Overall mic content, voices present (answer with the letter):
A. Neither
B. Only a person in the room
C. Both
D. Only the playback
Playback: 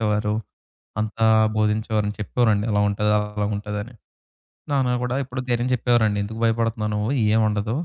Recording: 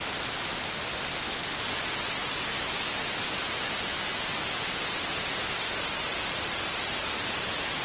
A